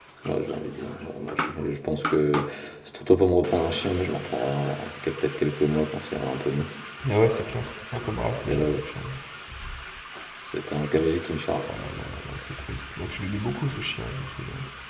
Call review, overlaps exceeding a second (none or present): none